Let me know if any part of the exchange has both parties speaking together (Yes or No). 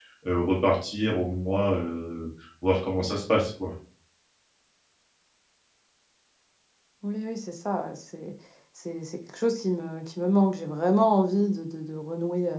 No